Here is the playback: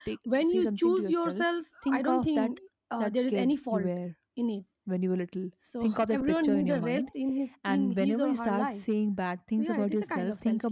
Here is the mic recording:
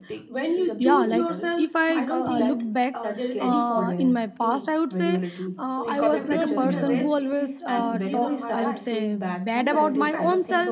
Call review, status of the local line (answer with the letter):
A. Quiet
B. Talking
B